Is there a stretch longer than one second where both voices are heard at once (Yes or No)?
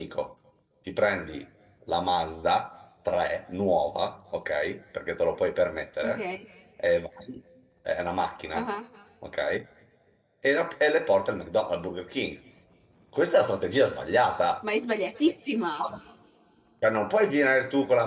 No